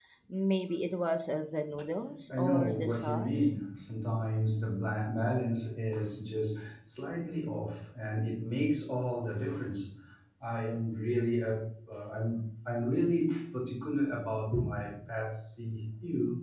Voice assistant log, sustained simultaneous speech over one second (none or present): present